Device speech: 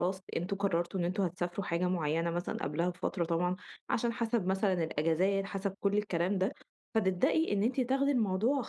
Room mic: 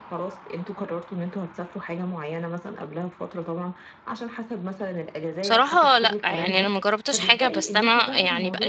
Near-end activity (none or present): present